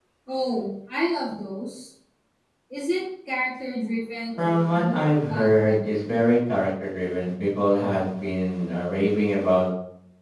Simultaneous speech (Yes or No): Yes